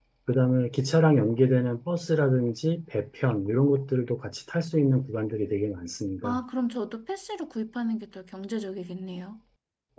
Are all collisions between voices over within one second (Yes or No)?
Yes